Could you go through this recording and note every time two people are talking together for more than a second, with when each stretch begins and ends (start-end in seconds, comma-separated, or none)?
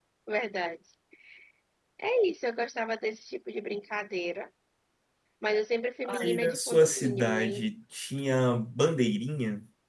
6.0-7.6